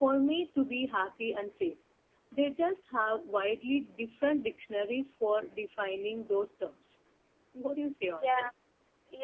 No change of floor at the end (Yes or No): No